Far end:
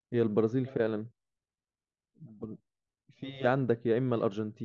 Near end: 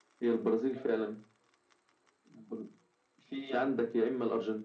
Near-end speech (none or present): none